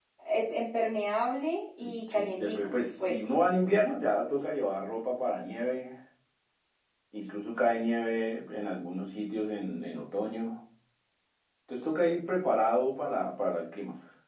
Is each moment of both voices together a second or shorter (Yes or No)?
No